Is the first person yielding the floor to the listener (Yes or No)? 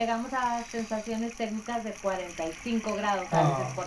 Yes